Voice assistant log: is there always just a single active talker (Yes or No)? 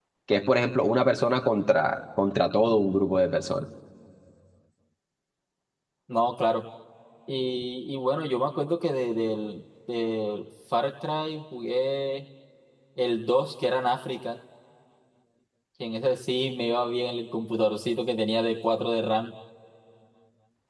Yes